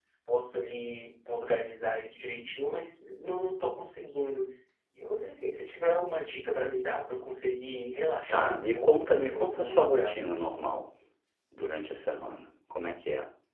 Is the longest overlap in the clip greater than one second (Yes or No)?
Yes